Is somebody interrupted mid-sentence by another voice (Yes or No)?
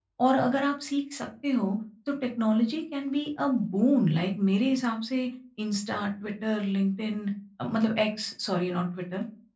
No